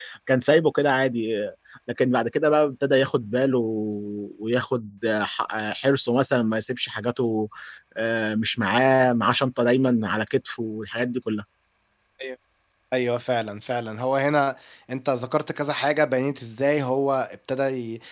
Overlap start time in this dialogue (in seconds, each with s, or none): none